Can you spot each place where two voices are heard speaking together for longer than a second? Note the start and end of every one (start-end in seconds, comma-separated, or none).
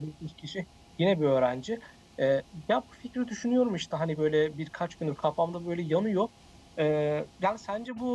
none